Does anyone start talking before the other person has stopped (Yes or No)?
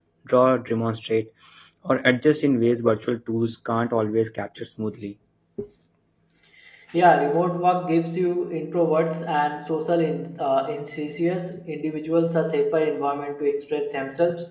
No